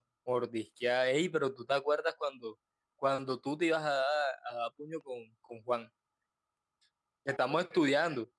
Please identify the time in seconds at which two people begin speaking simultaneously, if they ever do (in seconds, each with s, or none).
none